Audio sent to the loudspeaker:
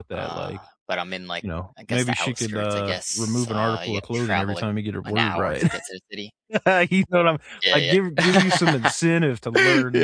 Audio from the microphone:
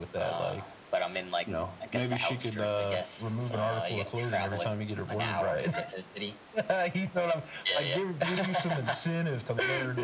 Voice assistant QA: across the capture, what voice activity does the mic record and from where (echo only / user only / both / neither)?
echo only